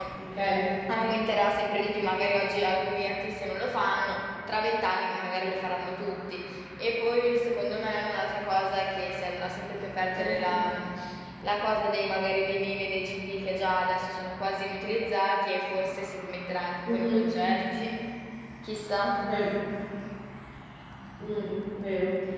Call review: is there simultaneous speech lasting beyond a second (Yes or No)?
No